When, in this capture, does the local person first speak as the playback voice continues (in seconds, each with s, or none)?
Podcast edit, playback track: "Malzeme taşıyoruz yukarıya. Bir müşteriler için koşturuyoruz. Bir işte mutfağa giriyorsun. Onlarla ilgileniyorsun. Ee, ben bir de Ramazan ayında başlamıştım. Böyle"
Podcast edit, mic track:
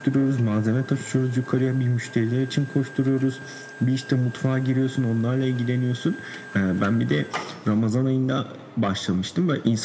none